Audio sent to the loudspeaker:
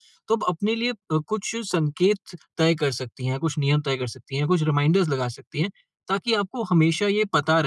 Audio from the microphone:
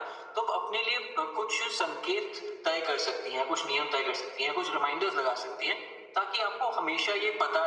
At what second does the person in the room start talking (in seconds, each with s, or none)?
none